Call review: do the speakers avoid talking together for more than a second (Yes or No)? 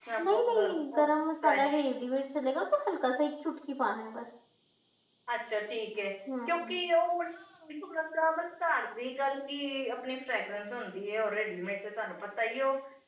Yes